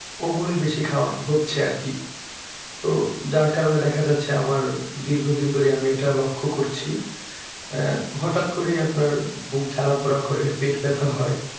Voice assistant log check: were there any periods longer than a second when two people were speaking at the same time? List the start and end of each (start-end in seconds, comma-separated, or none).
none